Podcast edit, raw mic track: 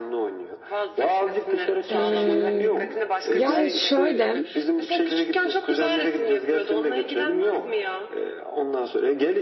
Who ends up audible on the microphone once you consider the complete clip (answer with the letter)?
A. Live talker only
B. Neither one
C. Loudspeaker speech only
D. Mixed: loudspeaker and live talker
D